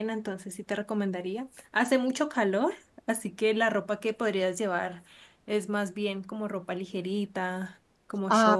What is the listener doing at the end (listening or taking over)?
taking over